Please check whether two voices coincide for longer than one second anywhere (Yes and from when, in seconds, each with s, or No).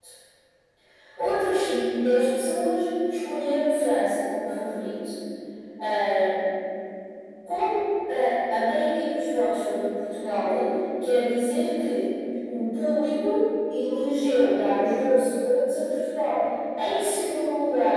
No